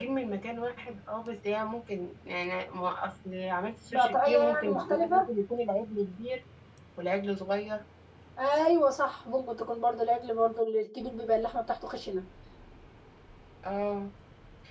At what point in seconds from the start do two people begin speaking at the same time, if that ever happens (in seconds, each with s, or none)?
3.9 s